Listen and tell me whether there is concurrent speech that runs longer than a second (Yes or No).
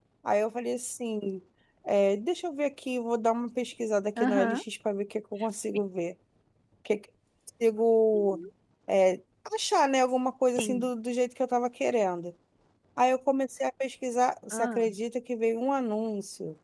No